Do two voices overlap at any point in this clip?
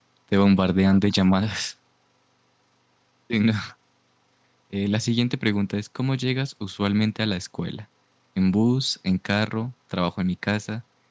No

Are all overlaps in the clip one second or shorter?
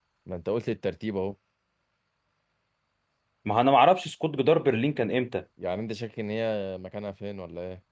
Yes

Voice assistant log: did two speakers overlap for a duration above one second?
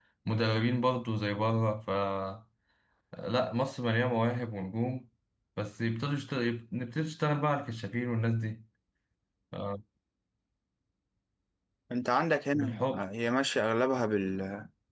No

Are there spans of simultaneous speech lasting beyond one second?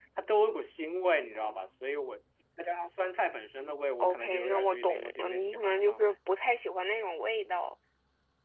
Yes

